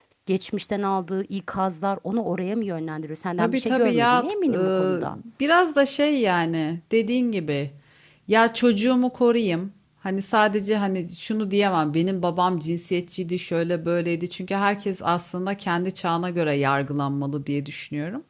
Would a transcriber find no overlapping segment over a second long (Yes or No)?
No